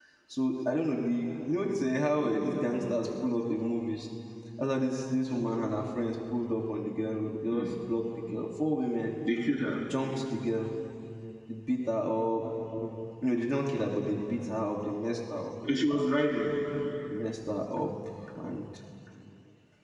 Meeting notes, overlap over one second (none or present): none